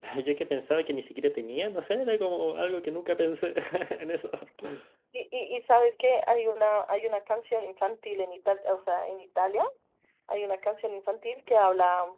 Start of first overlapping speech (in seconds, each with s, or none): none